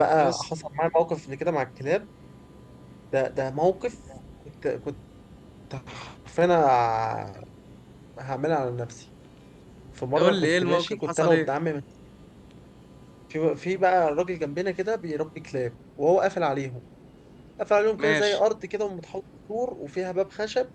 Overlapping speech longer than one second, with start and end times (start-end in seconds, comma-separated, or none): 10.2-11.5